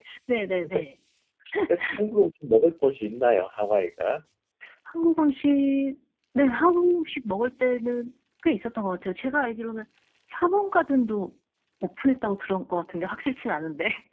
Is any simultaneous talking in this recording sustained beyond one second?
No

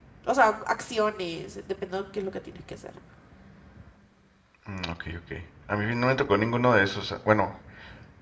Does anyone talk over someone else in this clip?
No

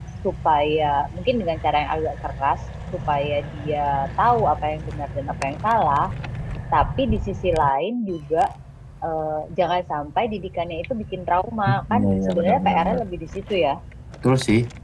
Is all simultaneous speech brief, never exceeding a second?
No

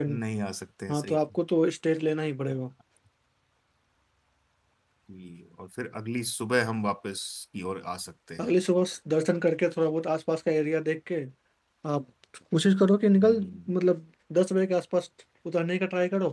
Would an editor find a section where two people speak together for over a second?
No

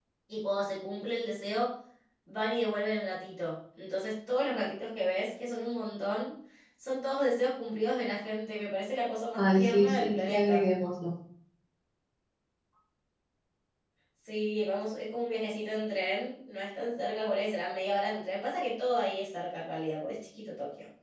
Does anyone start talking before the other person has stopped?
Yes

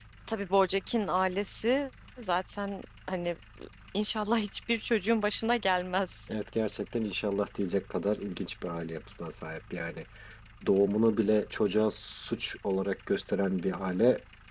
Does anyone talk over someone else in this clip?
No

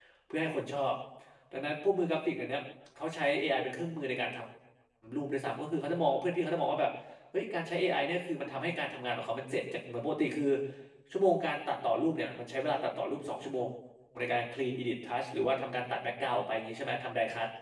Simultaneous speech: No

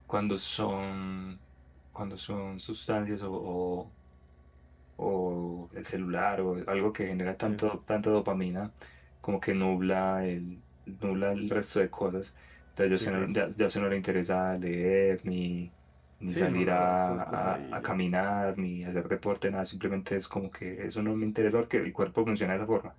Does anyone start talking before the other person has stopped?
Yes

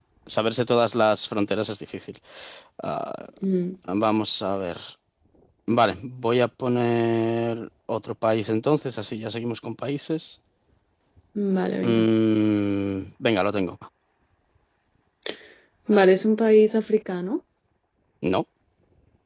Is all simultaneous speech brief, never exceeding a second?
Yes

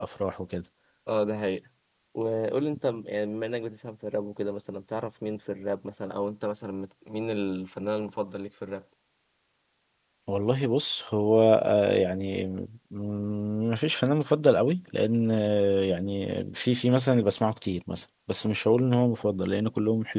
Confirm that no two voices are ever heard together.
Yes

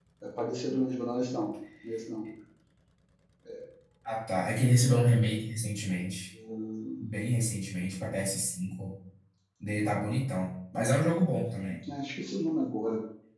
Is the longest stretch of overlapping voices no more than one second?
Yes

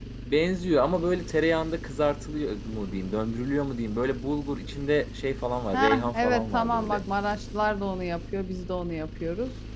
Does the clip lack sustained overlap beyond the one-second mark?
No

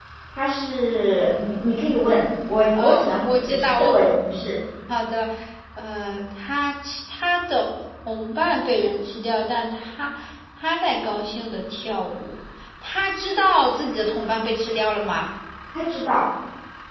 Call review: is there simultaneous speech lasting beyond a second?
Yes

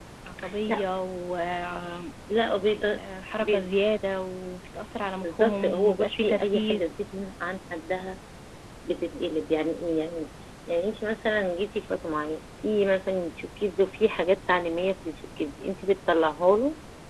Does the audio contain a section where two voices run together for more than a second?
Yes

